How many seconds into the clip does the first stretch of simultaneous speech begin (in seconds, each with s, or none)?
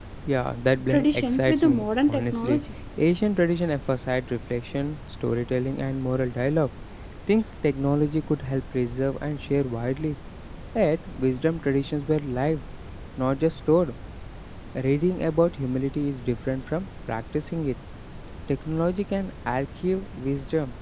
0.9 s